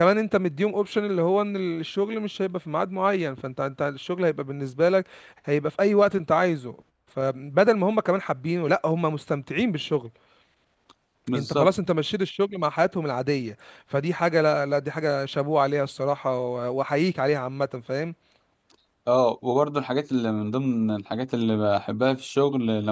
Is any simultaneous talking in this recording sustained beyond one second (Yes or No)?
No